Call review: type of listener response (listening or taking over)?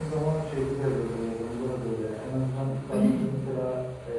listening